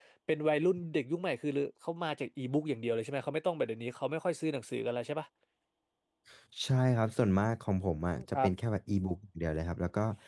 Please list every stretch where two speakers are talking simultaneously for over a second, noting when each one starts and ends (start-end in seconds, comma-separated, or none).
none